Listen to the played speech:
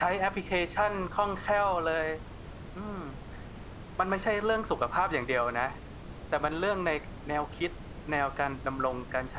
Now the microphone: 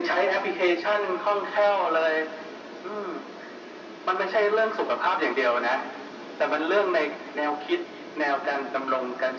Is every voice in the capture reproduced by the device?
Yes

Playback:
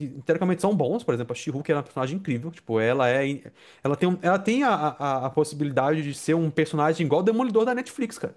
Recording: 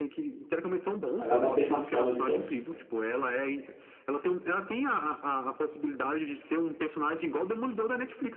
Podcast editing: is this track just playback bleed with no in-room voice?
No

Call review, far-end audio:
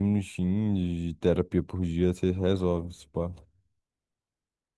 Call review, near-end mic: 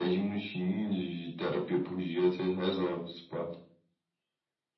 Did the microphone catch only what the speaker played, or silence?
Yes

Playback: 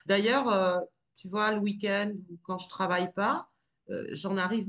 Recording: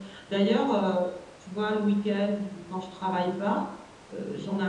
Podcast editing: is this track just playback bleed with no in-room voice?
Yes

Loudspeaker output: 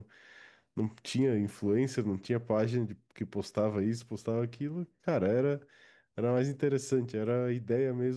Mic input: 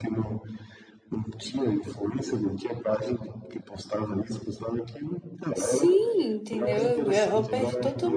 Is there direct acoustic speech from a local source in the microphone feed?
Yes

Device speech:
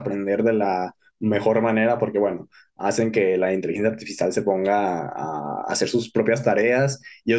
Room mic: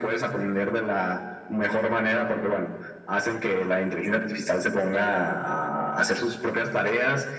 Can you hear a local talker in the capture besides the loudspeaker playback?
No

